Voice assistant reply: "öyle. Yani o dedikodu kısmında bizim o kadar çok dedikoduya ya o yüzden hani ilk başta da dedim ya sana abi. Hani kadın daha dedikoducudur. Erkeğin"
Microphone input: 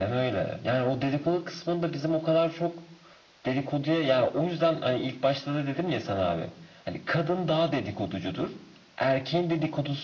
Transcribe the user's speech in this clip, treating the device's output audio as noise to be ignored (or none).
none